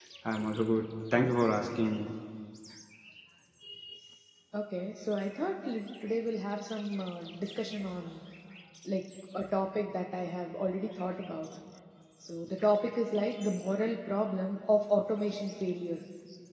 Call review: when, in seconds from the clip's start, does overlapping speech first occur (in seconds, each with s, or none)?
none